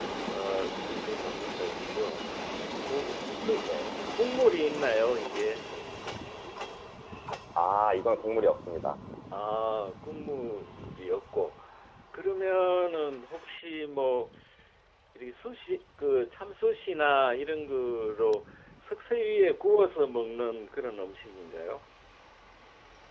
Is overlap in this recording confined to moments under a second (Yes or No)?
Yes